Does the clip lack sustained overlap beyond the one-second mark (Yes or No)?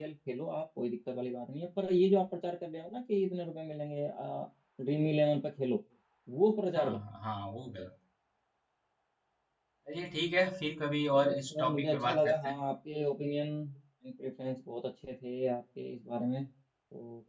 No